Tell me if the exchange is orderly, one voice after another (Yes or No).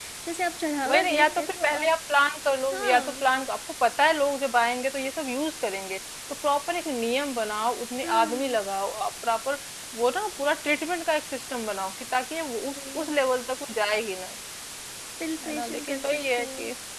No